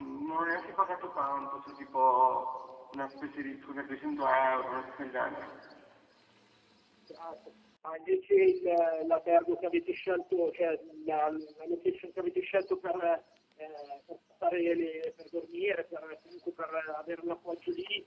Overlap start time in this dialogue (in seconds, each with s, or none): none